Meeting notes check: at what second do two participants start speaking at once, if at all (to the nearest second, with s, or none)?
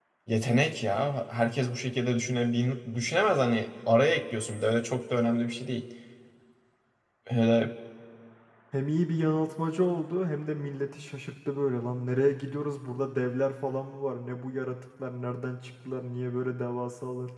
none